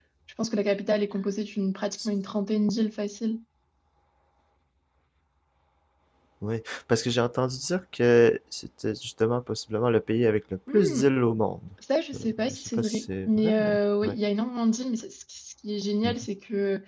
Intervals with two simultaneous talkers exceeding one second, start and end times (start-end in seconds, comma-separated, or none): 12.1-13.7